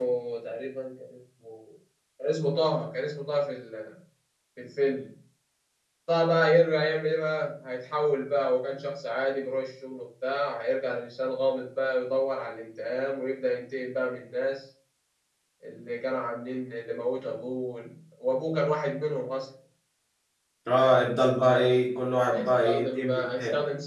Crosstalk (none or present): present